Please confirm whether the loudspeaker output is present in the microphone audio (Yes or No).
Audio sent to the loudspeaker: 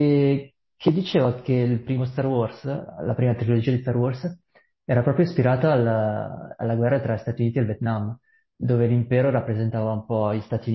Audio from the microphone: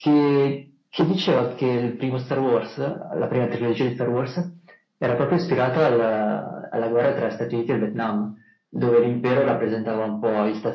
Yes